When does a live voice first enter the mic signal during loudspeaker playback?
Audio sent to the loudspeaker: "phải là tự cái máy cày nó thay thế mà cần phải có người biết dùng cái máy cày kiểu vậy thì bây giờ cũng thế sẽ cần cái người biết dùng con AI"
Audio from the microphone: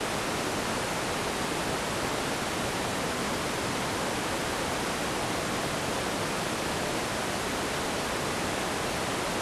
none

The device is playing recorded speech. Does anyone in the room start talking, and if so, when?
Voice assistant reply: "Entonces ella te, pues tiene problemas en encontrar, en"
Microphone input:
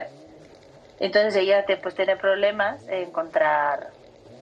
none

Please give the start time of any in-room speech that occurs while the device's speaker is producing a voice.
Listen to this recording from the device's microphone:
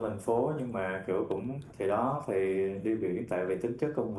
none

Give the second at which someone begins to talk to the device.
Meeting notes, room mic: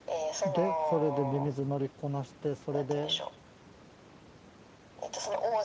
0 s

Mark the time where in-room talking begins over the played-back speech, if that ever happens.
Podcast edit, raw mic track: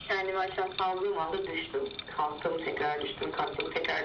none

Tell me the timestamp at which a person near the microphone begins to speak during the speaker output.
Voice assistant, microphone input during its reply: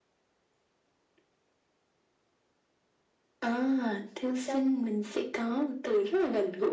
4 s

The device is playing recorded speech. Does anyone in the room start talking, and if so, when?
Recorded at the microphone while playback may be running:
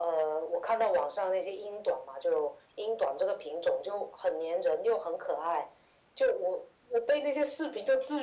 none

